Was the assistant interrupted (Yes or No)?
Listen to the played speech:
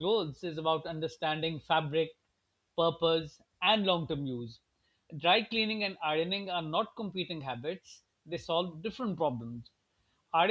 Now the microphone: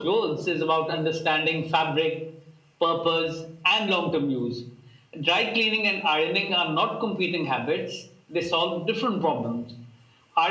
No